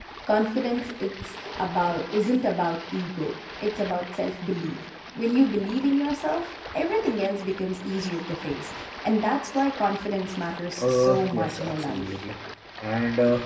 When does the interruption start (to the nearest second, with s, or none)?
11 s